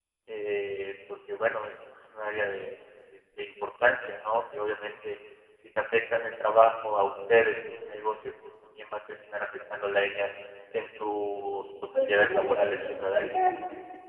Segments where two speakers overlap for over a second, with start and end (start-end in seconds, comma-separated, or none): 12.0-13.5